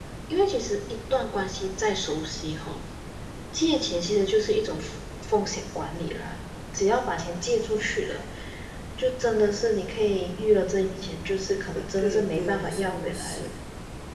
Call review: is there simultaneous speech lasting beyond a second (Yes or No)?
Yes